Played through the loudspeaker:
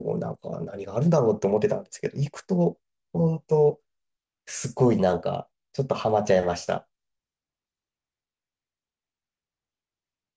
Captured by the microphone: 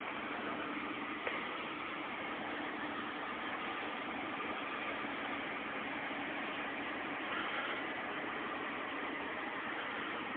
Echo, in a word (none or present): none